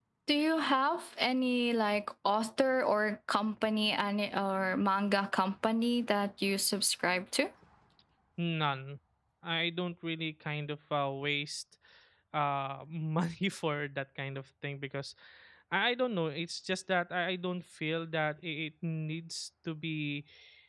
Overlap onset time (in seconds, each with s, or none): none